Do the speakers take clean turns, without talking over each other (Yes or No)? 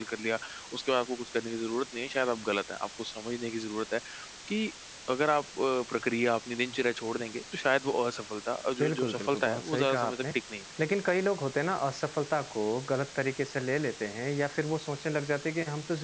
No